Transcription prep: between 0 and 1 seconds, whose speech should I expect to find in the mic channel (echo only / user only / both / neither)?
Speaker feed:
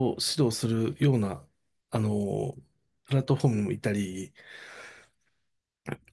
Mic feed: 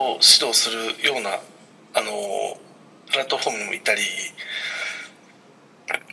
echo only